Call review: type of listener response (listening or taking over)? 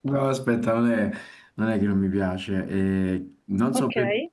listening